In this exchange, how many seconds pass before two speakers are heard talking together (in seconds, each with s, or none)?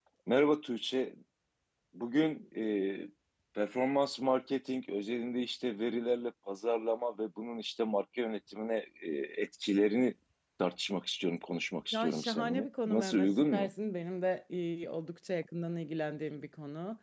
11.9 s